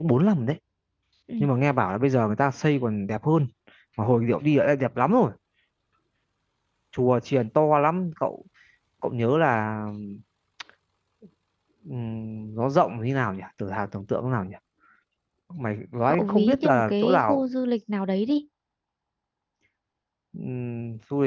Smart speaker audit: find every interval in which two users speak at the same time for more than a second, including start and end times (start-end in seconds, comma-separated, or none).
16.1-17.4